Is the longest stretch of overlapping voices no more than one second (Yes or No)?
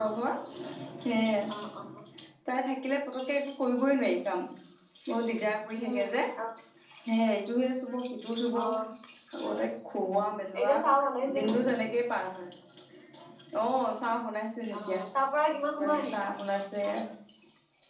Yes